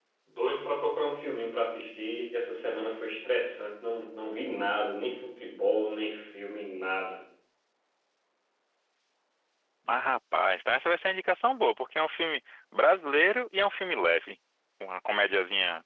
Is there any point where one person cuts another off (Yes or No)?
No